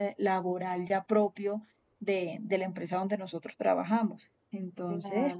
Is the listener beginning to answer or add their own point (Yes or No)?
Yes